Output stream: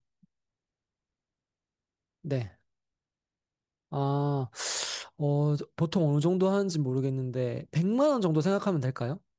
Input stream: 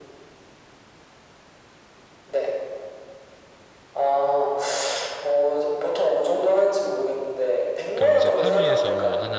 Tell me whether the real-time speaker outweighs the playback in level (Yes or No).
No